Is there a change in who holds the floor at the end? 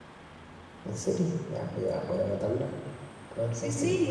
Yes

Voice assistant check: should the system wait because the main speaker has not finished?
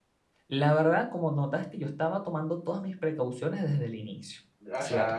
No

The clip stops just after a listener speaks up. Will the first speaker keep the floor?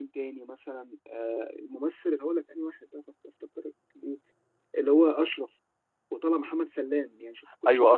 No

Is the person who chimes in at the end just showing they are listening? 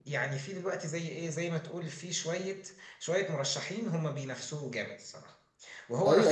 No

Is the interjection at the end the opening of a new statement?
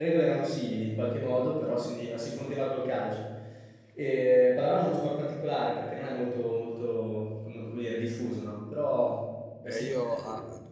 Yes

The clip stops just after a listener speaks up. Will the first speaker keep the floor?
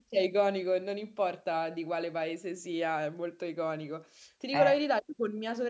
Yes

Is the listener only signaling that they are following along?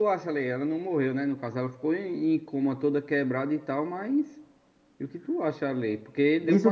No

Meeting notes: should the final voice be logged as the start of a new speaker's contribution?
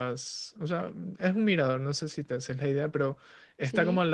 No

